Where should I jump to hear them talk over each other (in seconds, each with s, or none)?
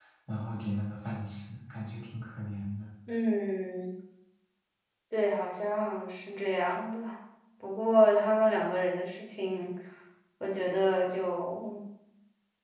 none